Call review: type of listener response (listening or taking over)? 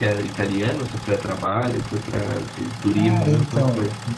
taking over